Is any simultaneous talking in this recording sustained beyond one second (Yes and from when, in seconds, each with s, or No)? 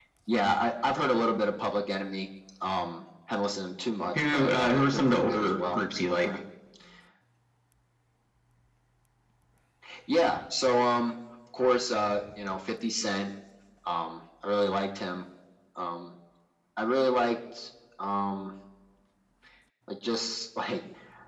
Yes, from 4.2 s